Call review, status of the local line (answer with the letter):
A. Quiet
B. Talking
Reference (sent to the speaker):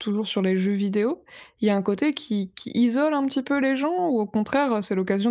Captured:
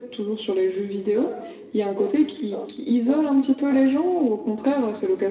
A